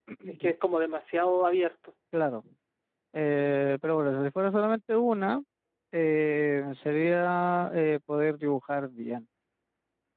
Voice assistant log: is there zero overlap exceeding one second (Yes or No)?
Yes